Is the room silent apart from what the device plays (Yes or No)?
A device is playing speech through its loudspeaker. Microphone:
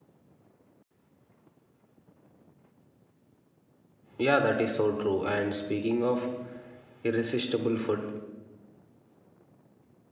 No